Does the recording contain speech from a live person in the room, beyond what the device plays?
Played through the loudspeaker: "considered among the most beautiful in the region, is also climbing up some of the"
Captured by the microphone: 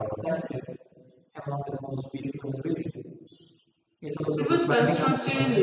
Yes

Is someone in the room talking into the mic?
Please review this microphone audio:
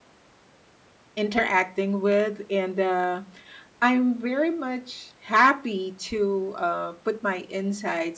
Yes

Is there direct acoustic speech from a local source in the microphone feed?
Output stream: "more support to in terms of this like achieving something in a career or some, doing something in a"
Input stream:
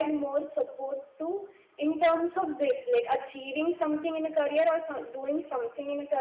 No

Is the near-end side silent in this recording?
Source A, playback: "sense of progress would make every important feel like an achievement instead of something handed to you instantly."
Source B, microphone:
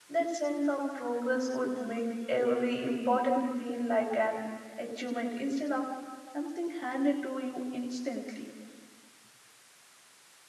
Yes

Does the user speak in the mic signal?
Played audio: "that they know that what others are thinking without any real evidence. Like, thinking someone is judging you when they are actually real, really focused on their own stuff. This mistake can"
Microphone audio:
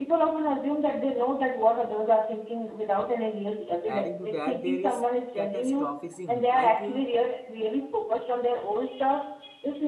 Yes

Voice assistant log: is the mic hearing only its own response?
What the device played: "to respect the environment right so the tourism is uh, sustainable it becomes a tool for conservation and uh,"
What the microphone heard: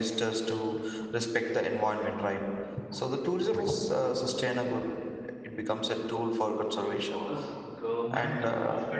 No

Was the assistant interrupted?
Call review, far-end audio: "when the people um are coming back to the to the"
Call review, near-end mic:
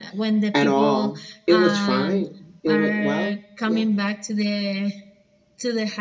Yes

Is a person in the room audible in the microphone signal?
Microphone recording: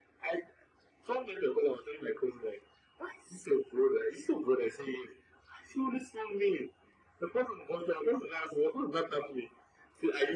No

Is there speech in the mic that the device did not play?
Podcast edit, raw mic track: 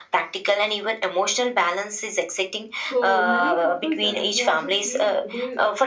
Yes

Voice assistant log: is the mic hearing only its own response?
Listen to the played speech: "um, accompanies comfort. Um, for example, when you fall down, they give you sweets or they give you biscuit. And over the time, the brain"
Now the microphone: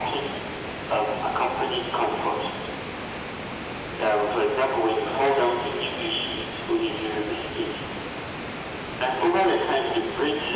Yes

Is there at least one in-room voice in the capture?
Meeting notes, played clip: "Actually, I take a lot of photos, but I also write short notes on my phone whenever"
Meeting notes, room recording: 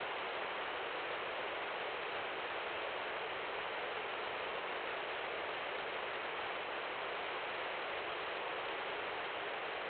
No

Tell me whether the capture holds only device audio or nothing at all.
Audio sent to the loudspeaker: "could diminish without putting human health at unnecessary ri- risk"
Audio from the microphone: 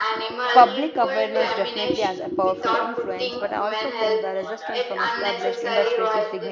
No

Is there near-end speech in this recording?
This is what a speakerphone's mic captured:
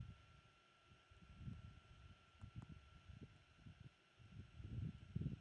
No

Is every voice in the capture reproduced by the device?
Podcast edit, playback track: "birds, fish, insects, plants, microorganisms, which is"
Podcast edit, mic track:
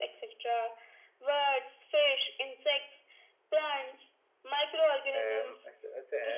No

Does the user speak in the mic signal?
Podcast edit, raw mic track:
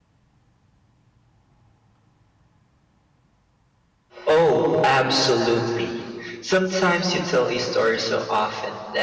Yes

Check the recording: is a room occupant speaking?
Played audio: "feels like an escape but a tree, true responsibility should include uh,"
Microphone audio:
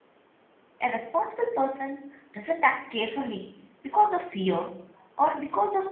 Yes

